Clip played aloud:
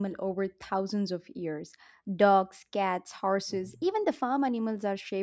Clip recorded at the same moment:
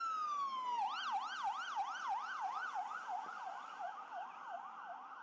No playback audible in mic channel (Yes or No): Yes